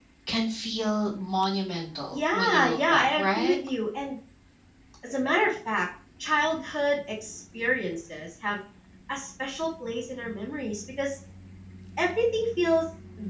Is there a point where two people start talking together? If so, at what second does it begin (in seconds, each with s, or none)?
2.1 s